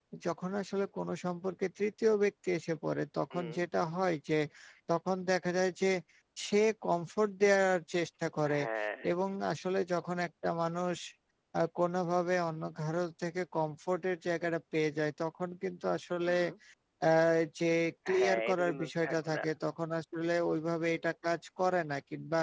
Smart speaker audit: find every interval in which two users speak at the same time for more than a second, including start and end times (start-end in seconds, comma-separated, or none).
18.2-19.4